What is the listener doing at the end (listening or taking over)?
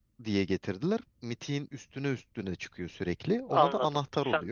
taking over